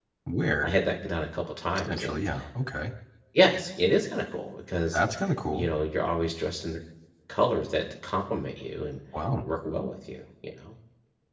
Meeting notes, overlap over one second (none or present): none